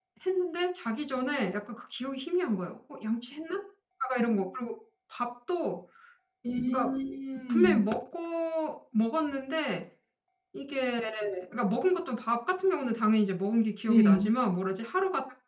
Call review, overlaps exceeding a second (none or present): none